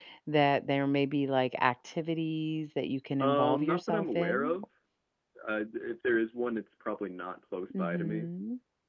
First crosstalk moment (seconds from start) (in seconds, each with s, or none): 3.2 s